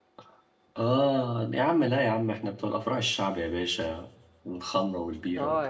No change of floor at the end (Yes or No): No